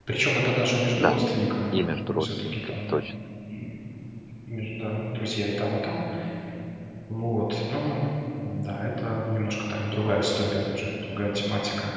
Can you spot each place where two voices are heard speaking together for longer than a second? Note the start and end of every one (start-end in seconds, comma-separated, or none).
1.7-3.1